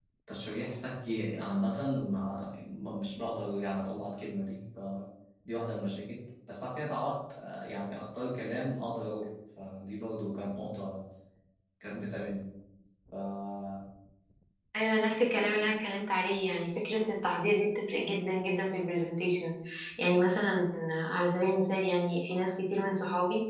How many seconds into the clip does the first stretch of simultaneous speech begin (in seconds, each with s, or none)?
none